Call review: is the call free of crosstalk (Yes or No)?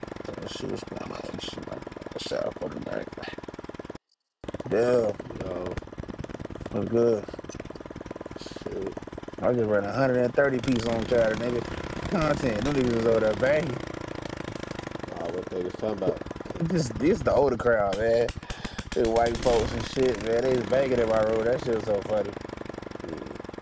Yes